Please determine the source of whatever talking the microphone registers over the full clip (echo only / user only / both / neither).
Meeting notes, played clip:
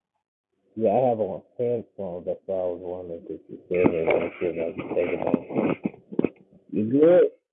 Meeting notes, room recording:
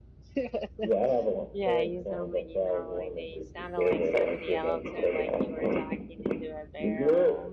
both